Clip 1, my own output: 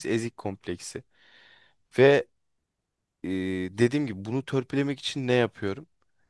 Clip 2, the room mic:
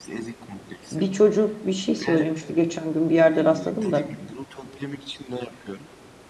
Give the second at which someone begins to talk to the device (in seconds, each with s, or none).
0.9 s